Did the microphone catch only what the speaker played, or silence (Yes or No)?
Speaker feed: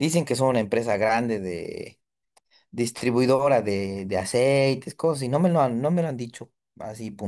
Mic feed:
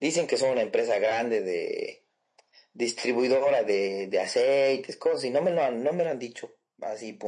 Yes